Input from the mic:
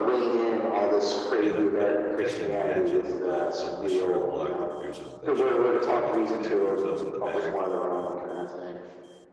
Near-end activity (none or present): present